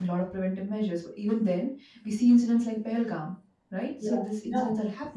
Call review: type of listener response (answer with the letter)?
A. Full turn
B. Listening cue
B